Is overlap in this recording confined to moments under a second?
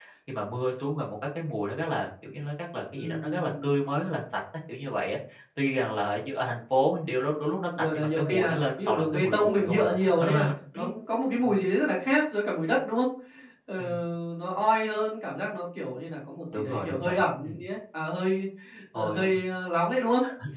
No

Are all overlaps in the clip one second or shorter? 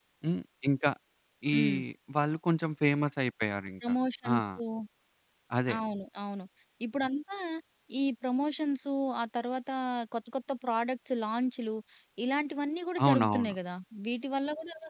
Yes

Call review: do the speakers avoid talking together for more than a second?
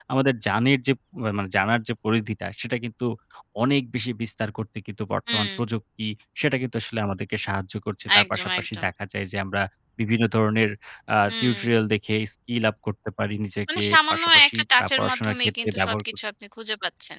No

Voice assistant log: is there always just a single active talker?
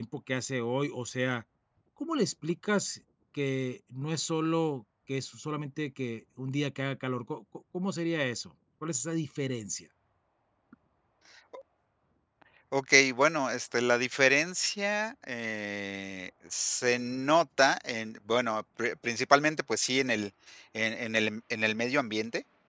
Yes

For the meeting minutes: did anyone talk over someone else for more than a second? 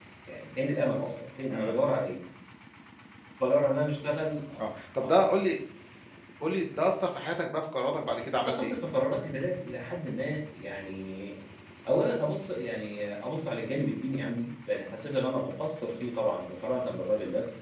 No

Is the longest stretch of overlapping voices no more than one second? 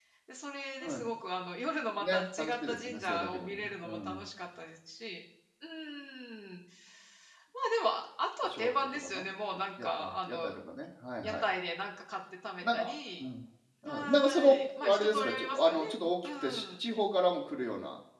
No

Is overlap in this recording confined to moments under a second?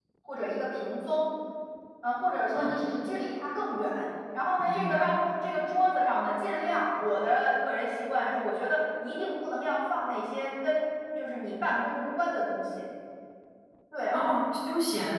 Yes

